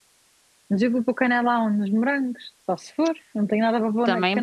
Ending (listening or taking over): taking over